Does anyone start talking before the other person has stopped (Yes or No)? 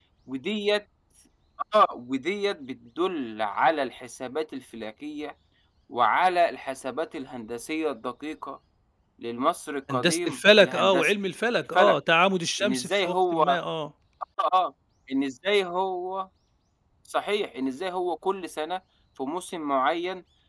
Yes